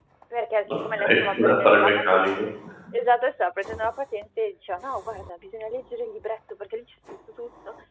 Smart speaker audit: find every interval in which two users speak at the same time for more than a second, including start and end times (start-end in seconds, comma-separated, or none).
0.8-2.5